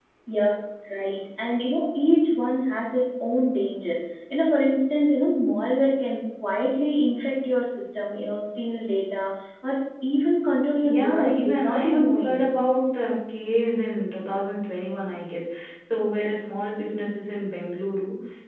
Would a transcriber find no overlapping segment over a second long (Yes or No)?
No